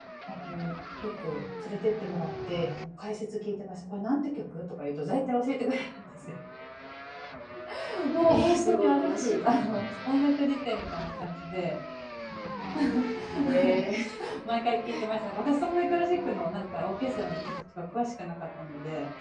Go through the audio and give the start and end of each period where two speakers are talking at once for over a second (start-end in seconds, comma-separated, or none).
8.3-9.9